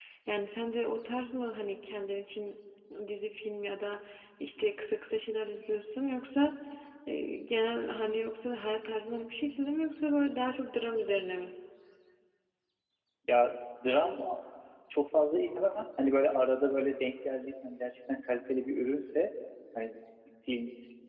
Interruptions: none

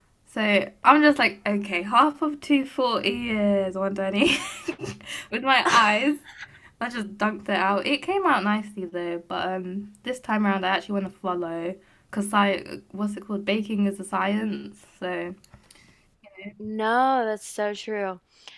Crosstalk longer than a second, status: none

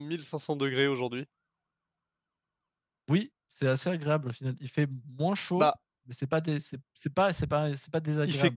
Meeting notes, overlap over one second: none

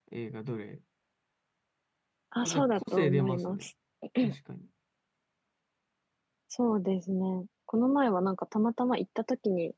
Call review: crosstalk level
present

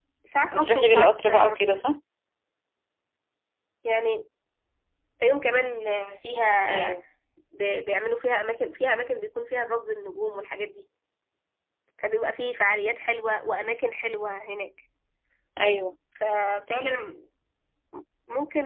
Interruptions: present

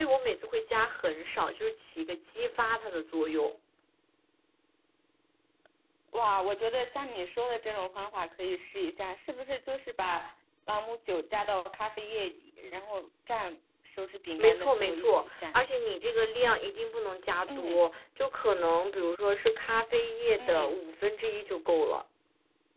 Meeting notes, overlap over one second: present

